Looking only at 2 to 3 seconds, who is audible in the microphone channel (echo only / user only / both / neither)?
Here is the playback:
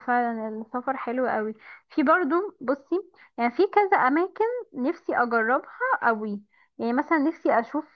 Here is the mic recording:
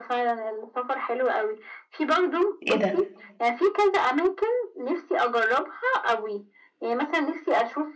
both